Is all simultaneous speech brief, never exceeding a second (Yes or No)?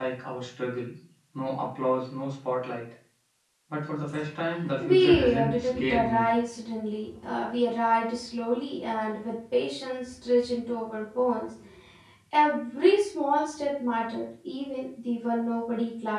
No